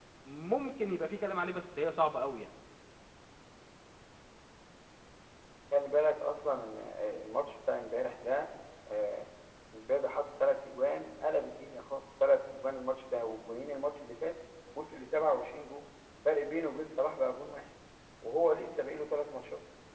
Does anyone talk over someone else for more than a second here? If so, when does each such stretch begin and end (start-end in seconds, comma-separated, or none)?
none